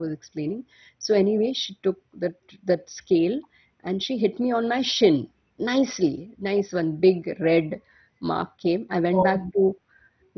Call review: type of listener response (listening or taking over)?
listening